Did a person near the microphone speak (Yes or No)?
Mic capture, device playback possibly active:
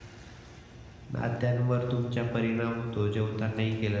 Yes